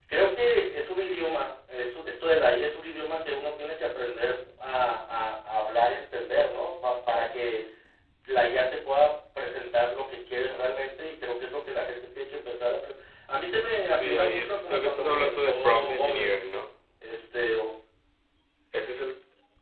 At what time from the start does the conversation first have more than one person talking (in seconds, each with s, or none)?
13.8 s